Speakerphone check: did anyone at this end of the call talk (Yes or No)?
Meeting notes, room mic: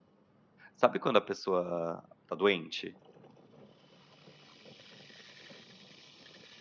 Yes